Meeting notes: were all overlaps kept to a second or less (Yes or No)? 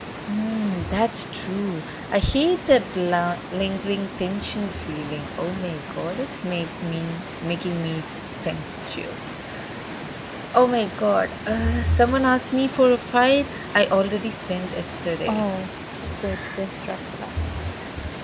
Yes